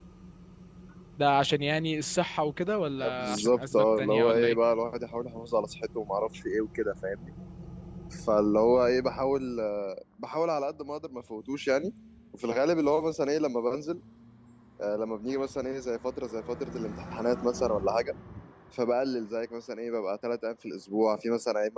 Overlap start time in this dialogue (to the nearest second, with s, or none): 3 s